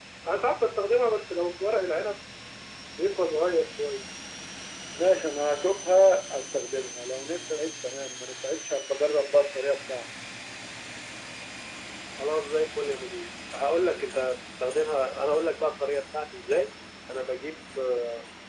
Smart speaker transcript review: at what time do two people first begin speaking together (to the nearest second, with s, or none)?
none